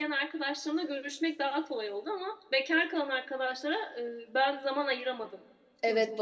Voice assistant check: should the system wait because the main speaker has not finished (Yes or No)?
No